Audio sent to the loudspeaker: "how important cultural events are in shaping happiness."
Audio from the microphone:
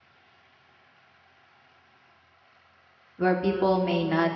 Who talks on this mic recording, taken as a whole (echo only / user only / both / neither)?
user only